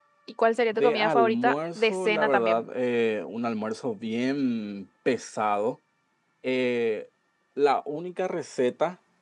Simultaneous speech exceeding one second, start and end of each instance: 0.7-2.6

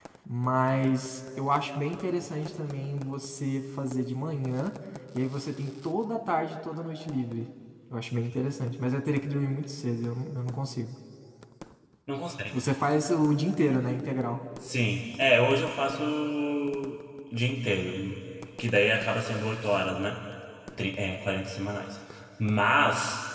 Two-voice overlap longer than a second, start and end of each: none

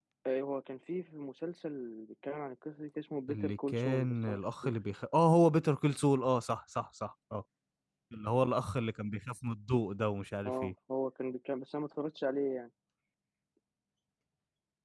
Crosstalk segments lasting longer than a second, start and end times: 3.3-4.7

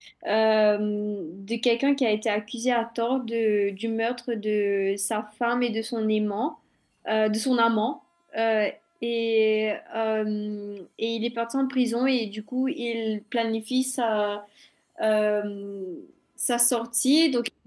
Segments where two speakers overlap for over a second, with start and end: none

